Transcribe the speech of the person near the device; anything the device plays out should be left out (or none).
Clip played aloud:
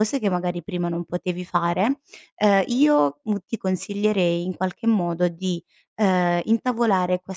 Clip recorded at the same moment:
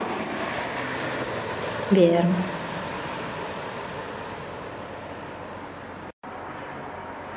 Vero.